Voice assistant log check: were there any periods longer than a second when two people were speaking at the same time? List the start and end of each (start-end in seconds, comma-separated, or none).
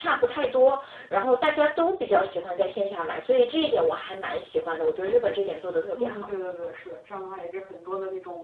none